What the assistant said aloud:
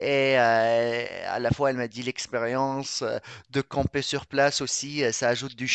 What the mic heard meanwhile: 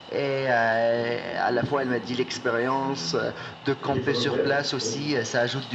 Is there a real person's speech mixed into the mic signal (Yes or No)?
Yes